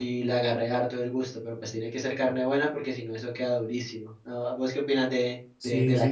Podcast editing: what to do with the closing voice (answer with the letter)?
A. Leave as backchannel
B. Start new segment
B